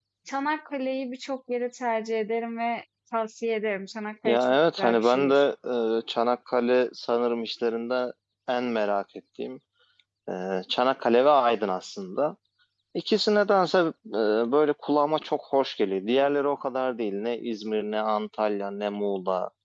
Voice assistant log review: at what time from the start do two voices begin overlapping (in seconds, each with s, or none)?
4.2 s